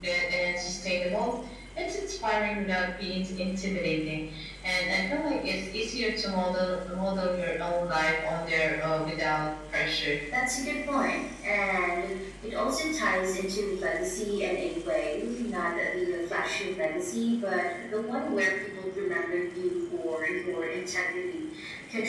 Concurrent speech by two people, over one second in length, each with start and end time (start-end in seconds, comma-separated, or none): none